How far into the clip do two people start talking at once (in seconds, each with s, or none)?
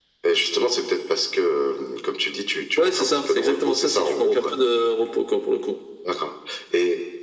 2.8 s